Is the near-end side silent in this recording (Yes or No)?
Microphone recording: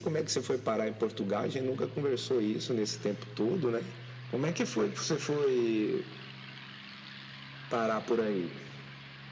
Yes